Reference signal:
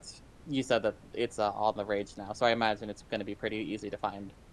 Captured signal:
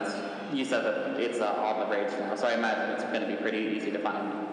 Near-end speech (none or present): none